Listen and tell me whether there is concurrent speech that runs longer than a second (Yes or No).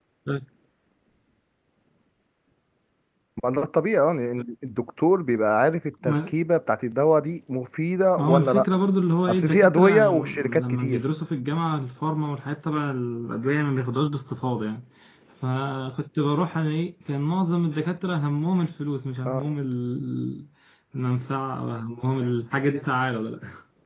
Yes